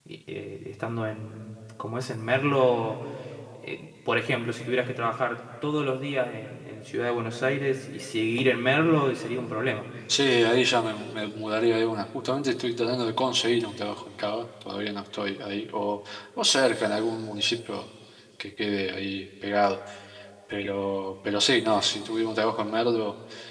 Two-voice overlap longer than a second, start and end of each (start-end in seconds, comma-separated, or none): none